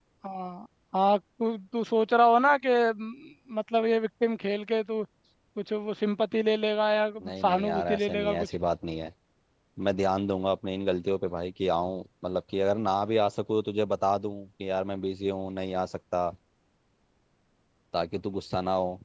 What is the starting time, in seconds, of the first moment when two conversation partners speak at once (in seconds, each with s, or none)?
7.2 s